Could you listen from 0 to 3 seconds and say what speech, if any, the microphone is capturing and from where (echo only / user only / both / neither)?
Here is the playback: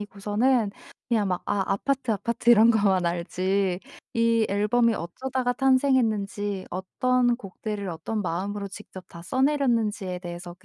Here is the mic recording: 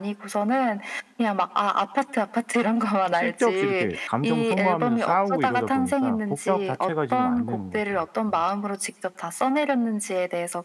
echo only